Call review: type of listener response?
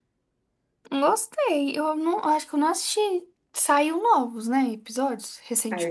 taking over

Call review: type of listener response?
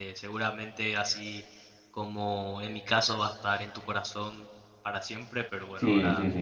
taking over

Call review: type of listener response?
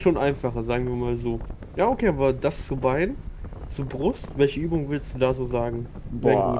taking over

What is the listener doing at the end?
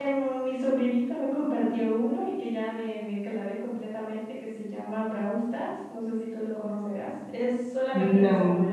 listening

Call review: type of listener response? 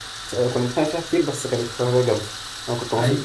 taking over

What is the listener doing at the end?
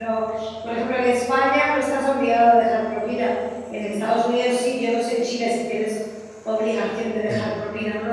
taking over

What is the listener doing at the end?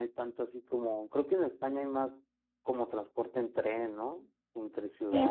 taking over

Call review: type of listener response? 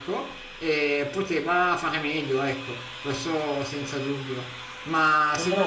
listening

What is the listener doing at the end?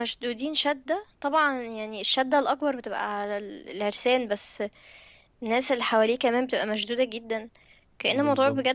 listening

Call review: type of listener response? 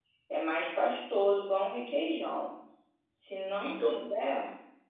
listening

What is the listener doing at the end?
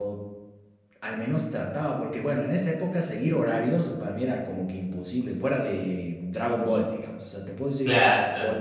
listening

